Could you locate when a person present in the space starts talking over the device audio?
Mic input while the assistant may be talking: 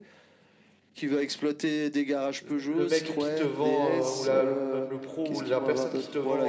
2.4 s

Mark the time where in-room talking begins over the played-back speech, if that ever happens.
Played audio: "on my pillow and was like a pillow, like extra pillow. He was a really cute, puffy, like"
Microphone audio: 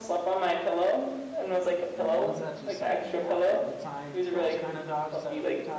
1.9 s

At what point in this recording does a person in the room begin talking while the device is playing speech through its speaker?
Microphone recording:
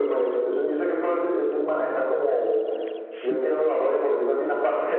3.1 s

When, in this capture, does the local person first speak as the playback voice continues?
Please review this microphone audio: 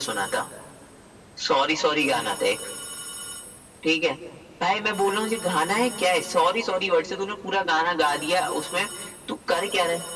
none

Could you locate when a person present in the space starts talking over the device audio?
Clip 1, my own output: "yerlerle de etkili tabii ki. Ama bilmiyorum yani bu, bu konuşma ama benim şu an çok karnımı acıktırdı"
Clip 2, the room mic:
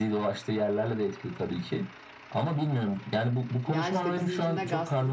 3.6 s

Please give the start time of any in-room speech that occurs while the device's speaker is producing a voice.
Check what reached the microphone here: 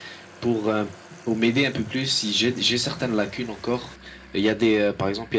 none

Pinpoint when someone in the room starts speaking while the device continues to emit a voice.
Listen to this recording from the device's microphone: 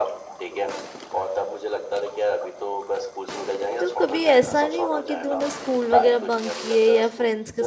3.8 s

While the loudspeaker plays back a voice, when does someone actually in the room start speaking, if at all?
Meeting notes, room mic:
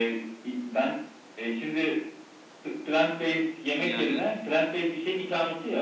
3.7 s

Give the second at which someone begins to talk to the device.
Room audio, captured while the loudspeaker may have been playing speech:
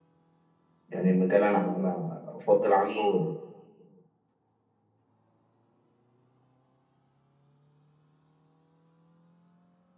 0.9 s

